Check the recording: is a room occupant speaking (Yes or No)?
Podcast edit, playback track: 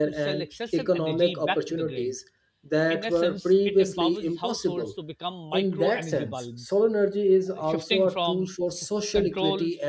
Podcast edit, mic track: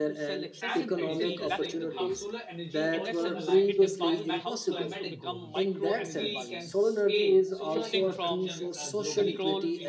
Yes